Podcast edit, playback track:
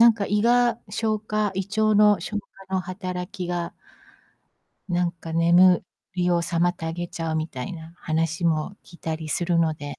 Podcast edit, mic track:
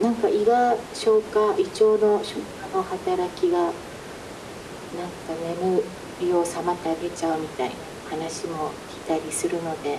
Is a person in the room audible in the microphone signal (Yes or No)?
No